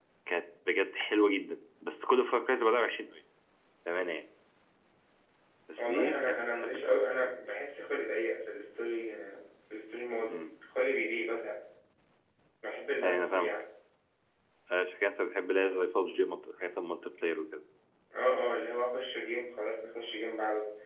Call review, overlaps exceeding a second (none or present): present